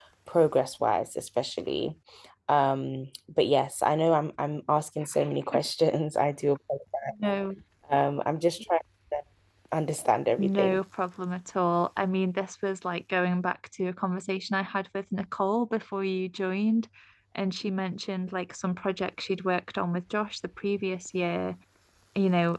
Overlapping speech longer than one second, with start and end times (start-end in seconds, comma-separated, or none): none